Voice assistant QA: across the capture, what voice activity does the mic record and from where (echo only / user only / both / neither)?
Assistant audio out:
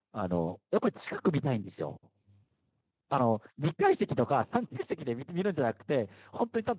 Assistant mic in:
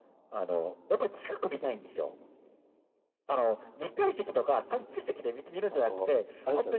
both